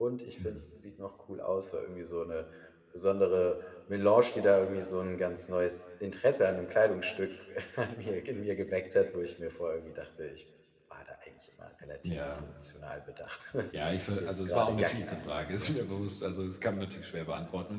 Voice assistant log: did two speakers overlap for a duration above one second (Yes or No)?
Yes